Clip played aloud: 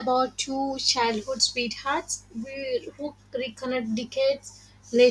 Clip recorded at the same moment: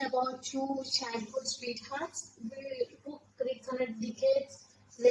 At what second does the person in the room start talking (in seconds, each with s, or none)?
none